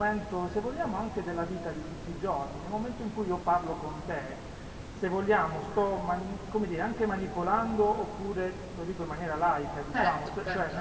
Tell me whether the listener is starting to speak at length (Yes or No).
No